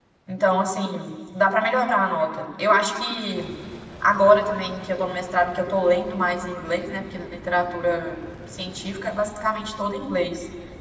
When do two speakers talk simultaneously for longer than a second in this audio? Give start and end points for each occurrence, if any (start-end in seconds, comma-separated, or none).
none